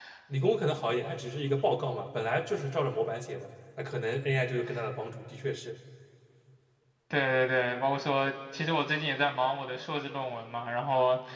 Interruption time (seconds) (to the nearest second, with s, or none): none